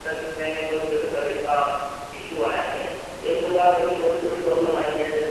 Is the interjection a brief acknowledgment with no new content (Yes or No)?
Yes